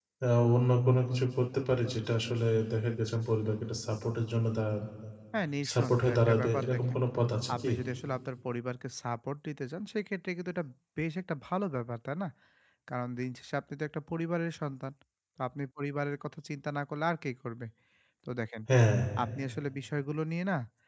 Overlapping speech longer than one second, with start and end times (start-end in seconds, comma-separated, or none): 5.7-7.0